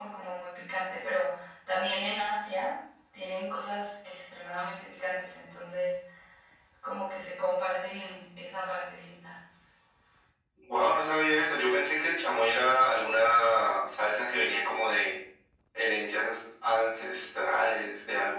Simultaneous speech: No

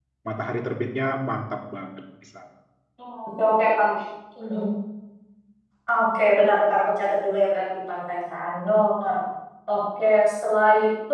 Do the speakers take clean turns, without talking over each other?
Yes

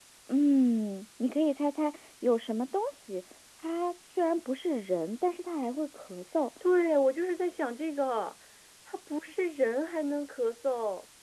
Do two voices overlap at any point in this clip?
No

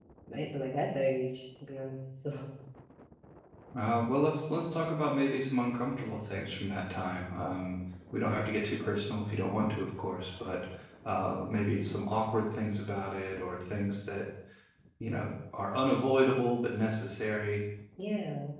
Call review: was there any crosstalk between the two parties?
No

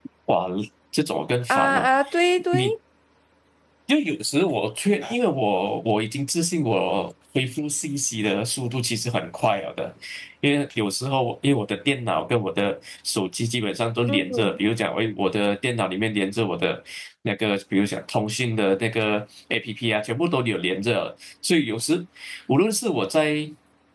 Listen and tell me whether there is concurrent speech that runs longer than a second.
No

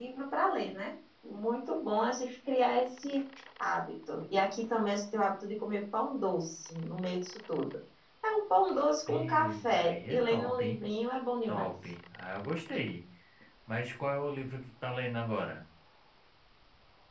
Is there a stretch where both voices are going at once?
Yes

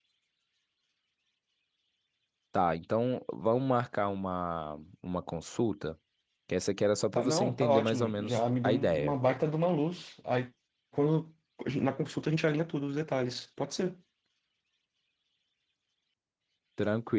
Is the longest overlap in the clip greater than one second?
Yes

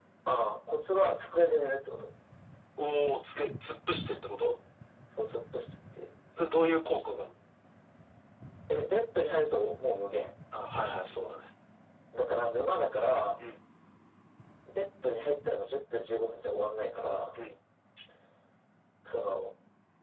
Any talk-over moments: No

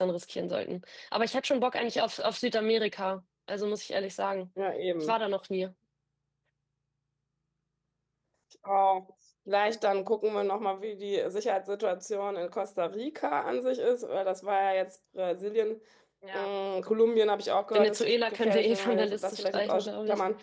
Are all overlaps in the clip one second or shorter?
No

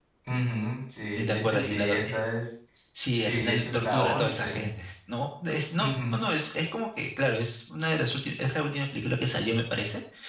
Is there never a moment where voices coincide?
No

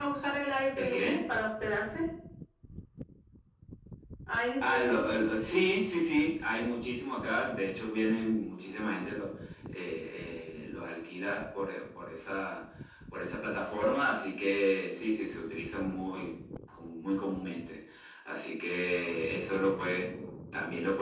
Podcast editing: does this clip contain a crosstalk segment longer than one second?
No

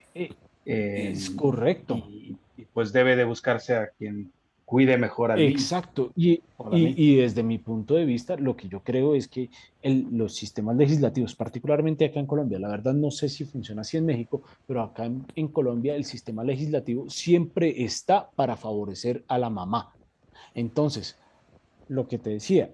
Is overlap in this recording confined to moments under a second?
Yes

